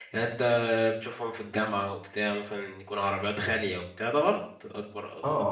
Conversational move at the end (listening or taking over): taking over